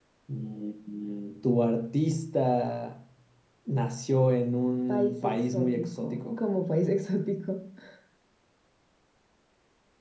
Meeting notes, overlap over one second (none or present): present